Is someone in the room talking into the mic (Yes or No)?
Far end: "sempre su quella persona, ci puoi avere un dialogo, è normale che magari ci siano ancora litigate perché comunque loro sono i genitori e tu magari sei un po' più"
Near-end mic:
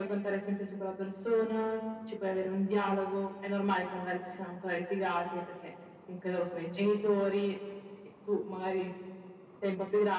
No